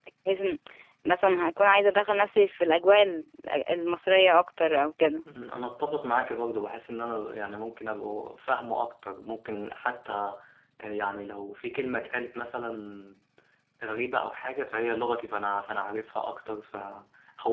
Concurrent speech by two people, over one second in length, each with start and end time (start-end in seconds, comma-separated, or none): none